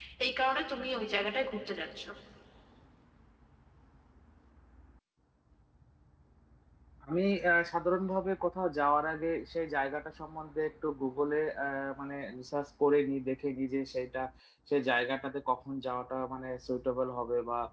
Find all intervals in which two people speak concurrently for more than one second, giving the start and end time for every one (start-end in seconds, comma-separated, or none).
none